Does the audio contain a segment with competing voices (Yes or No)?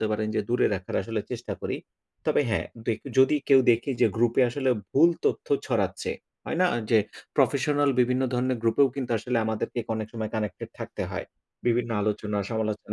No